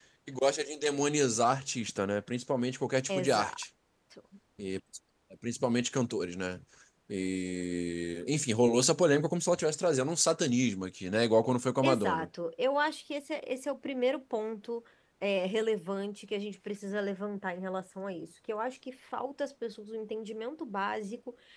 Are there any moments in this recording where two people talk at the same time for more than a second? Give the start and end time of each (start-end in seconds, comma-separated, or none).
none